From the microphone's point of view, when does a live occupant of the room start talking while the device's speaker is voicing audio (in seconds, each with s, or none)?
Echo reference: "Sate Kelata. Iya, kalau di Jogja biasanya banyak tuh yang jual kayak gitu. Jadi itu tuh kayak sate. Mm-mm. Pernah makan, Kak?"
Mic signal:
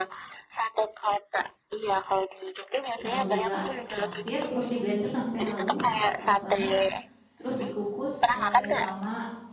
3.0 s